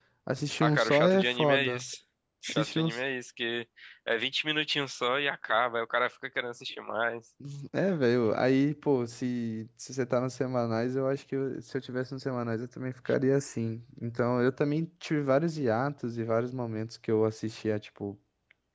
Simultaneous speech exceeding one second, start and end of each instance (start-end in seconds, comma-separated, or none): 0.6-1.8